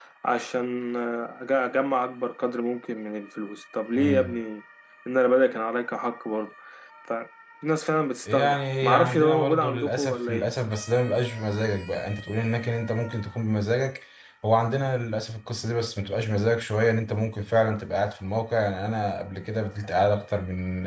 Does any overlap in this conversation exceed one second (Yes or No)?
Yes